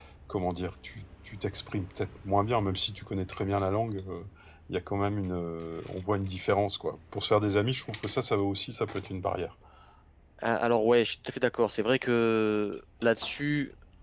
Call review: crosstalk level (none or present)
none